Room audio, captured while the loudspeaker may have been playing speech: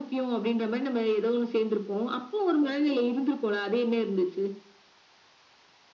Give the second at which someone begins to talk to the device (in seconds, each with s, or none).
none